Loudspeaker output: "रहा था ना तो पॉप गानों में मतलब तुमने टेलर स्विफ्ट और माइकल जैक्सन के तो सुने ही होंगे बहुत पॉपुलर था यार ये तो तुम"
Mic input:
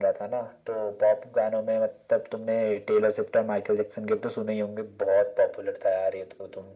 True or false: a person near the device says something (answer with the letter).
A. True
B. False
B